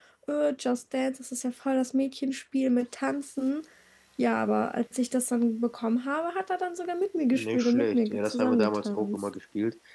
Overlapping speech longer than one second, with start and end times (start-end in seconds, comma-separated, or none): 7.3-9.2